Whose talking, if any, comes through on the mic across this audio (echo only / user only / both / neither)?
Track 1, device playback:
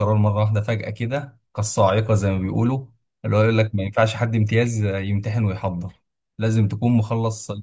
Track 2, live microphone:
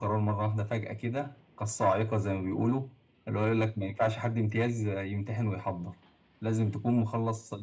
echo only